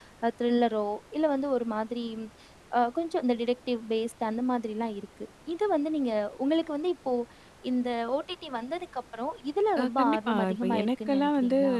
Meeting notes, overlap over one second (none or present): present